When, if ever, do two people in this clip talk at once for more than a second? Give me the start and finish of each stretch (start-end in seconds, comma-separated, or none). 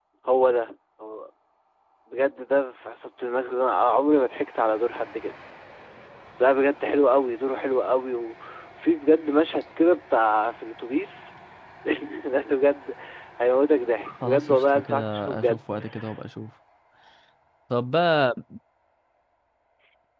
14.0-15.6